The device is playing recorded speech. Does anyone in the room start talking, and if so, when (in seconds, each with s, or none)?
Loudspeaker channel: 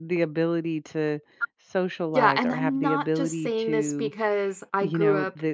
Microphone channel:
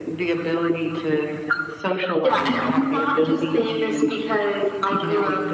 none